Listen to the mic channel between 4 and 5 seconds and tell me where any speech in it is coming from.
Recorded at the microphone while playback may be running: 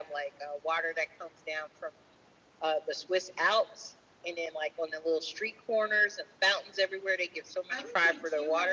echo only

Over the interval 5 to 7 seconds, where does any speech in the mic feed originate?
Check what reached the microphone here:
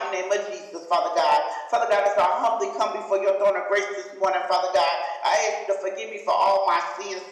echo only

